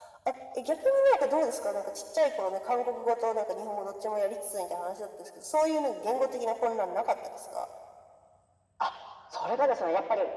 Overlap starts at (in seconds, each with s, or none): none